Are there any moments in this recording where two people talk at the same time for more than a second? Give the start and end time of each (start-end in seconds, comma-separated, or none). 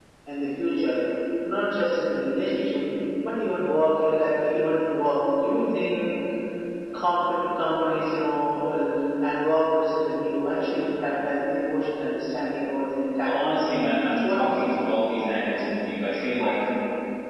13.2-14.7